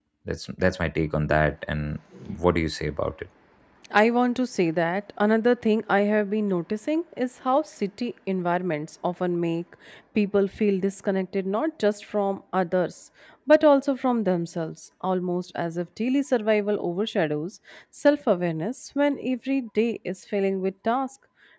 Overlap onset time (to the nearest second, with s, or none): none